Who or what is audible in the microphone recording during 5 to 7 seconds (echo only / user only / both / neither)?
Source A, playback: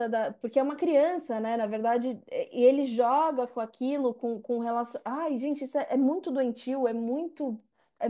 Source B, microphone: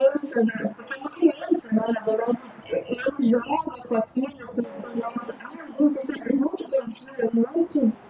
echo only